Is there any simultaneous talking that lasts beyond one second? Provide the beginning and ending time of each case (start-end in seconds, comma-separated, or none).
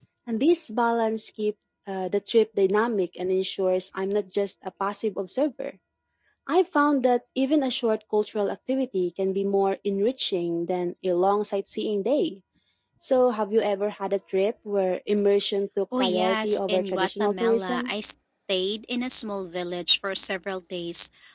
16.0-17.9